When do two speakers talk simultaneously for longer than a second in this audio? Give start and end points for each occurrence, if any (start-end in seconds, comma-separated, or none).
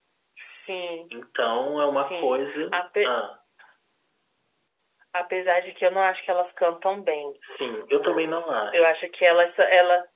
1.9-3.1